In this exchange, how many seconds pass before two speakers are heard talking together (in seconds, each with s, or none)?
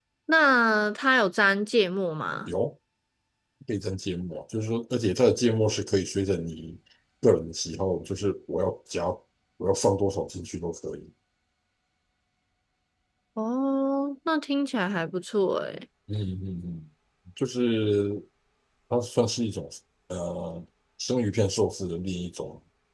none